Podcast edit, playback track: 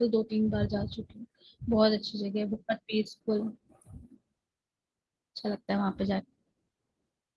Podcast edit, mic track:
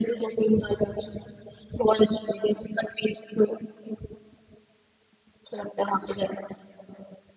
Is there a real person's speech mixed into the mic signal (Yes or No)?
No